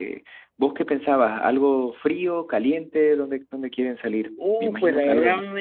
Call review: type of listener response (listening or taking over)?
taking over